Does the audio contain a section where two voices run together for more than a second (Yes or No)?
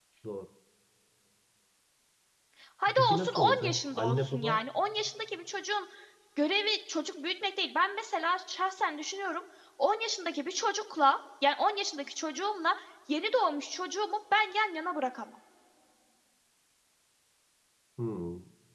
Yes